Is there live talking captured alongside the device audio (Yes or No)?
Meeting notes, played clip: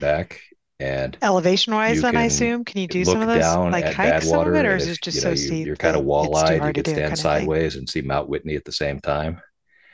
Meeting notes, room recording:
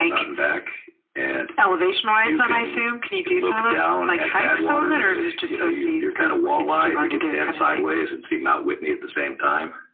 No